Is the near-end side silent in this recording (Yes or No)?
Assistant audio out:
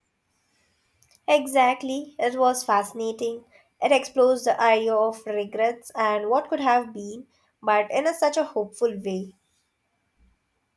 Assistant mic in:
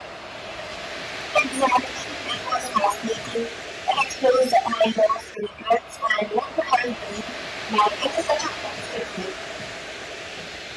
Yes